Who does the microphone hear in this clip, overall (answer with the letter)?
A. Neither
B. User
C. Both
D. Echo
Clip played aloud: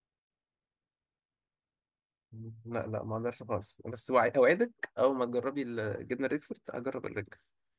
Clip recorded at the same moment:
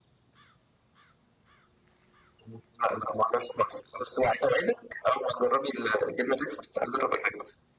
D